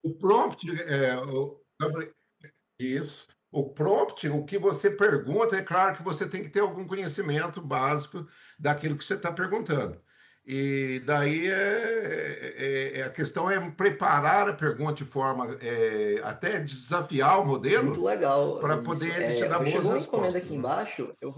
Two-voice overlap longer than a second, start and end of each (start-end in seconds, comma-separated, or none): 18.6-20.6